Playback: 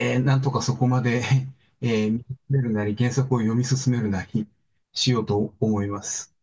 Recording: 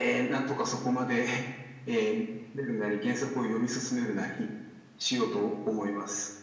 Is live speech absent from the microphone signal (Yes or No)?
Yes